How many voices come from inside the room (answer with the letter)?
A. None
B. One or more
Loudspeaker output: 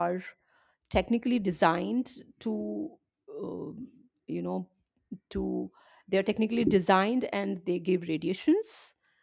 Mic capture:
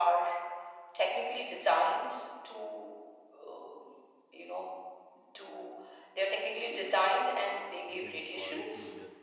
B